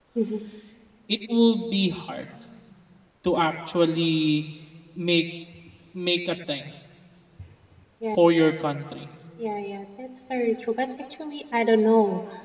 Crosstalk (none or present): none